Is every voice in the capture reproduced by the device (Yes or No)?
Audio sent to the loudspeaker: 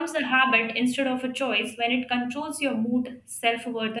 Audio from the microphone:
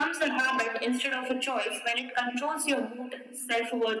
Yes